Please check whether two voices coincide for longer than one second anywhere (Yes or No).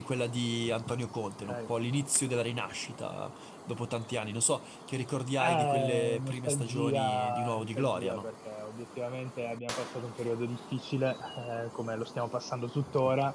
Yes